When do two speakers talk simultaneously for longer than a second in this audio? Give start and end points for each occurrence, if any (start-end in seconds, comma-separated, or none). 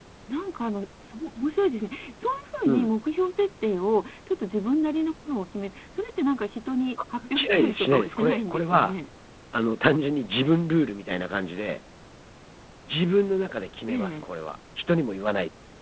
7.3-8.9